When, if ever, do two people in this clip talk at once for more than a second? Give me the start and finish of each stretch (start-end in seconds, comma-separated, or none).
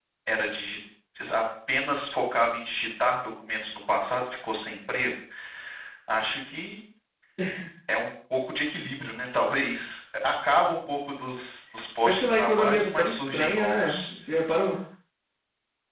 12.0-14.2